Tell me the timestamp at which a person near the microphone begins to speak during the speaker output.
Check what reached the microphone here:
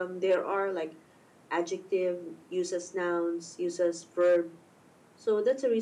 none

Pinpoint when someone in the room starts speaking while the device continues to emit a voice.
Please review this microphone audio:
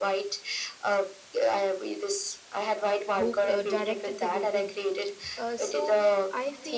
3.1 s

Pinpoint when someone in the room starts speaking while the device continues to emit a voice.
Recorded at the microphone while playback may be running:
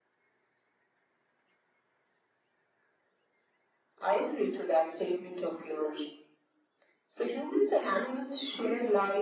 none

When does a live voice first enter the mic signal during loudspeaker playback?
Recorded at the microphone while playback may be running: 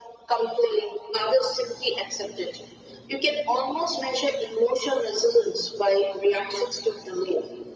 none

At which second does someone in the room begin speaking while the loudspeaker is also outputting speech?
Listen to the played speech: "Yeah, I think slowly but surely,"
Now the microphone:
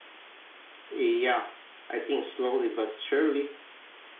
none

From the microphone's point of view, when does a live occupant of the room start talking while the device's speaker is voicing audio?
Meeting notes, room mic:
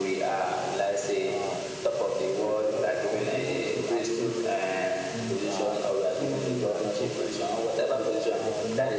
1.3 s

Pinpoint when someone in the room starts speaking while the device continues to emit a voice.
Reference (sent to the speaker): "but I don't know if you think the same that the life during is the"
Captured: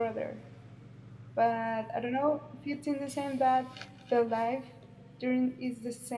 none

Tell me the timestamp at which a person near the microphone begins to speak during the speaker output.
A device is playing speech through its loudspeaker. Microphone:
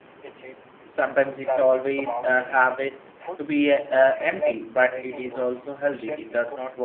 0.9 s

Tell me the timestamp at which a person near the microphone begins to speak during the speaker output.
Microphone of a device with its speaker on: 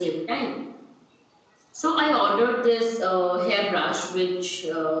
none

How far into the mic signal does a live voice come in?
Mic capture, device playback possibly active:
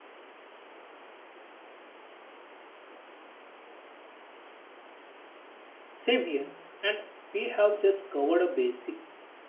5.9 s

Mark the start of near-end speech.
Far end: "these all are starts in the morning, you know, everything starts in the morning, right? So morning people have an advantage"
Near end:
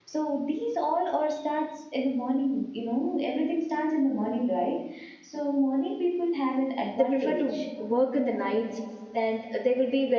6.9 s

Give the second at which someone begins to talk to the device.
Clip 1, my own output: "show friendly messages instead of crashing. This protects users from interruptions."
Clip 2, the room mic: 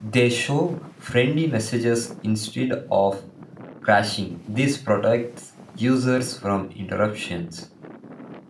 none

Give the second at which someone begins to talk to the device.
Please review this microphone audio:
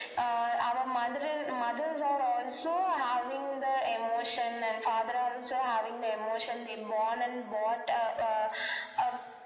none

